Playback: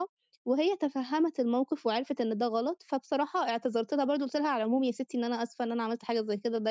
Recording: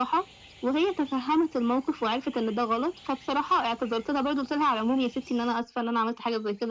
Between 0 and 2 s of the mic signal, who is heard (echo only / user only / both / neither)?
echo only